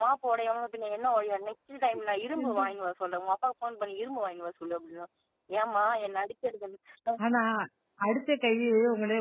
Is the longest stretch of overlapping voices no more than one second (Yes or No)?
Yes